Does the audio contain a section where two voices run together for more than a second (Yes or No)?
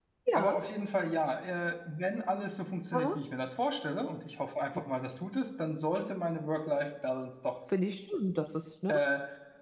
No